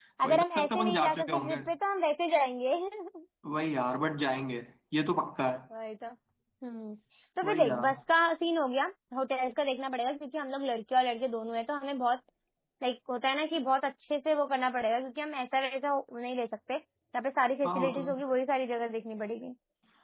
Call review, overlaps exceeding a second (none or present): present